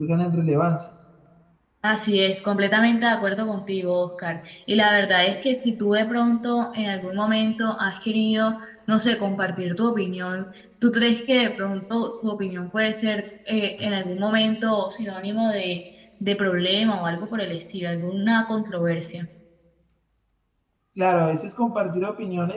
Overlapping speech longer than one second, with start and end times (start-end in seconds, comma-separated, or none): none